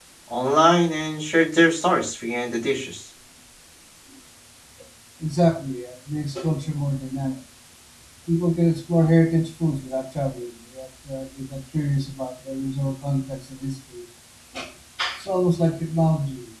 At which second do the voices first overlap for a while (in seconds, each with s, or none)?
none